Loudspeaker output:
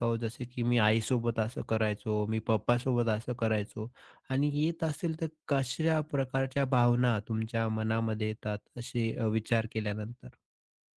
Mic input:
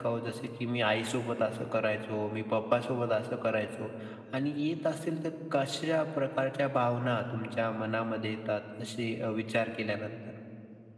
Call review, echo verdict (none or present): present